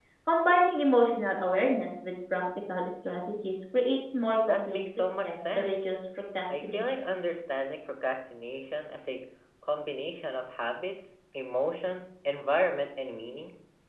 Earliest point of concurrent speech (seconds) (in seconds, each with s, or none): 4.5 s